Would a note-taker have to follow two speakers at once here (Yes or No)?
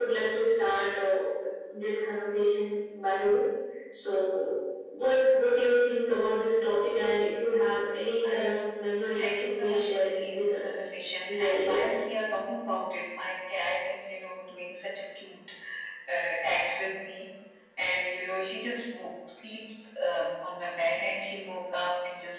Yes